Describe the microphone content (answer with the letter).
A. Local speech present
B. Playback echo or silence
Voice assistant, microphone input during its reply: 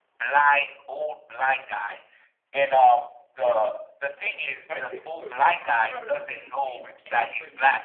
A